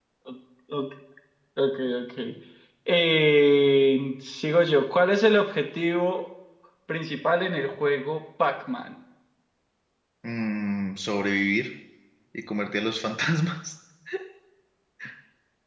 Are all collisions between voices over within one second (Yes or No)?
Yes